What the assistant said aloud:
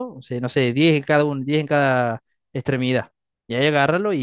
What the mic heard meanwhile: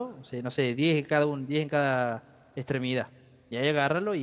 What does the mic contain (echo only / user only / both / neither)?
echo only